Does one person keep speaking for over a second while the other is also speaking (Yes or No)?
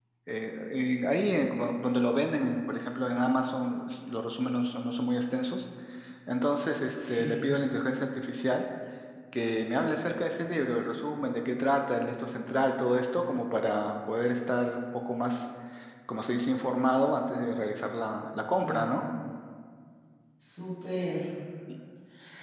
No